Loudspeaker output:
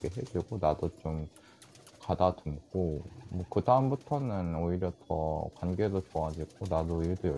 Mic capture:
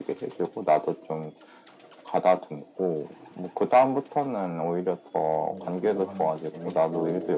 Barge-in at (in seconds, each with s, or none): 5.4 s